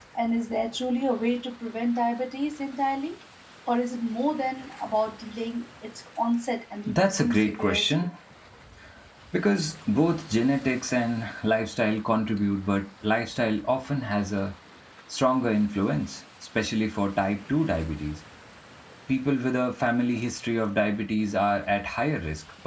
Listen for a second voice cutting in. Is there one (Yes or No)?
Yes